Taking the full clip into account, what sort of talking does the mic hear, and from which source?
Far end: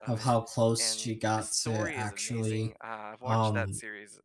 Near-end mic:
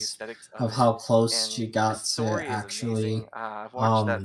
echo only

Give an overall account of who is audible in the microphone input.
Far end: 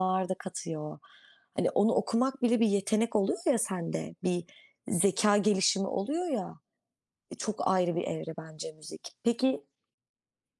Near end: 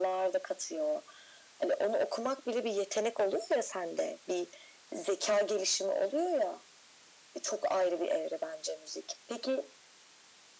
echo only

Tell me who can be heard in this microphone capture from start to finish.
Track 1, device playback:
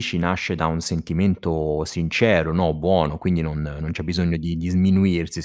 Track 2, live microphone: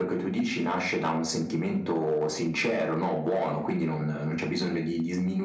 echo only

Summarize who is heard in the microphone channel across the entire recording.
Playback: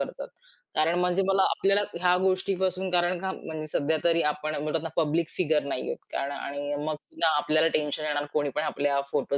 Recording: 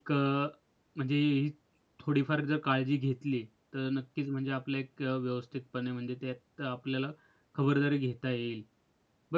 user only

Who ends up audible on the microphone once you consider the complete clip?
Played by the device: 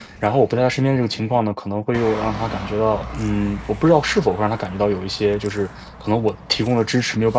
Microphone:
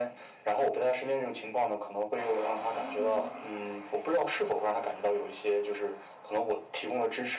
both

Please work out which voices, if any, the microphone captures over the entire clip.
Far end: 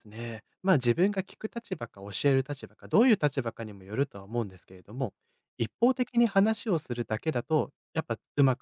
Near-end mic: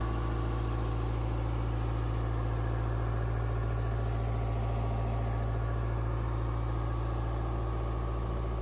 neither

